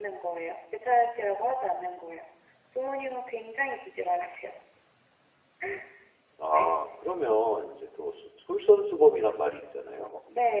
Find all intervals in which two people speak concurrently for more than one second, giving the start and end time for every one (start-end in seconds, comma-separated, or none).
none